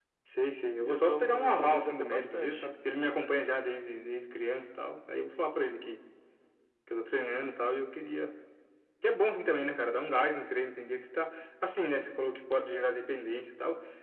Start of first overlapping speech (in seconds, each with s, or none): 0.8 s